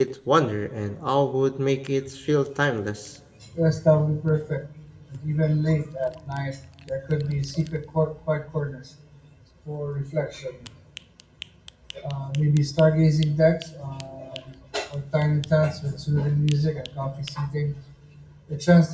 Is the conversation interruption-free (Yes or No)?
Yes